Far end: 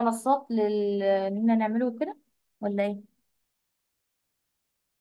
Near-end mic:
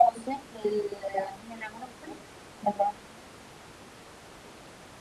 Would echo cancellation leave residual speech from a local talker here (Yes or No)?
No